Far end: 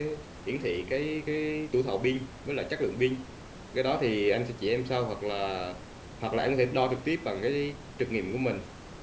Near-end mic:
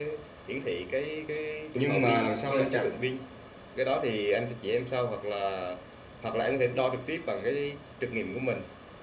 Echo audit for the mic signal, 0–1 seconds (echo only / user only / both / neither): echo only